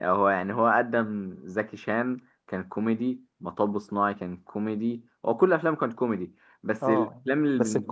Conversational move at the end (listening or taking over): taking over